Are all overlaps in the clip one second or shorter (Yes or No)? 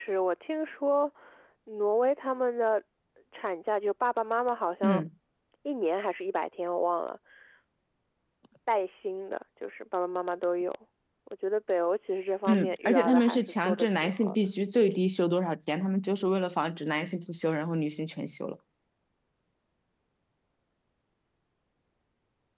No